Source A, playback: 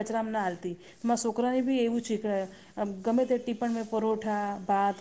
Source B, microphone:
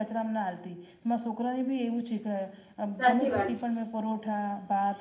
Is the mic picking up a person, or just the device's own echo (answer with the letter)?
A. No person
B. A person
B